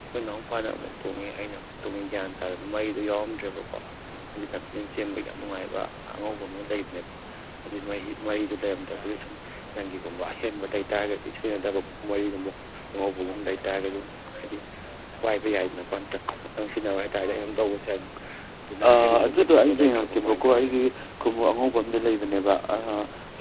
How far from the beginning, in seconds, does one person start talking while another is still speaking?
18.9 s

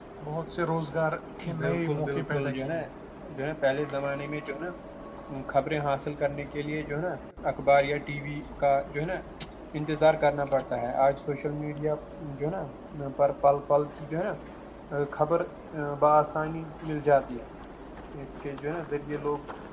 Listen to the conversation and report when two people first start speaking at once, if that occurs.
1.4 s

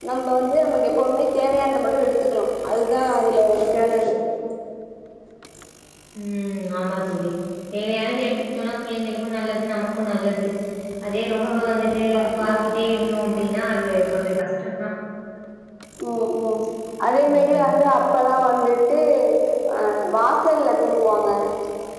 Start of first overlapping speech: 11.5 s

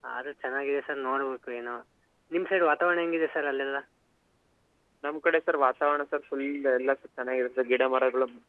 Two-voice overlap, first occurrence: none

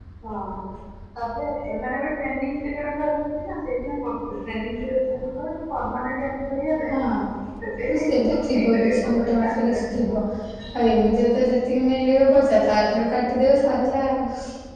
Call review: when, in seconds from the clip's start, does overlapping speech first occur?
7.9 s

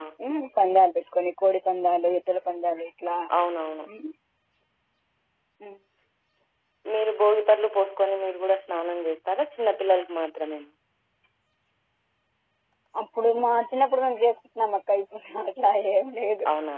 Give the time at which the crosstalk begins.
none

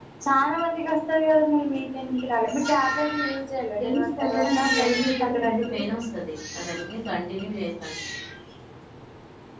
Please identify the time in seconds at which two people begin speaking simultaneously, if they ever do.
3.9 s

